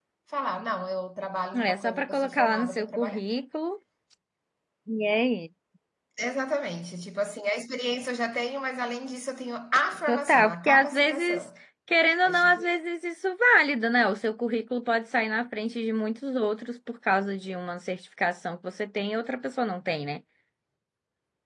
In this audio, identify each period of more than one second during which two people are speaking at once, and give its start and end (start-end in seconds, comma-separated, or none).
1.6-3.2, 10.1-11.5